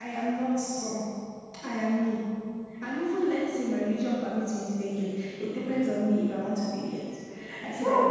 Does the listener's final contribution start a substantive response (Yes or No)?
No